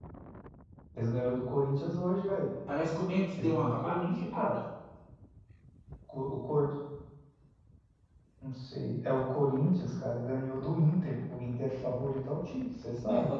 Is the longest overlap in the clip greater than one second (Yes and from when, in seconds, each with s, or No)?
Yes, from 3.4 s